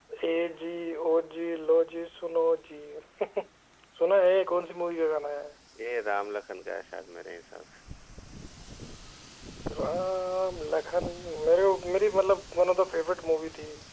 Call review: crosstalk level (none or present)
none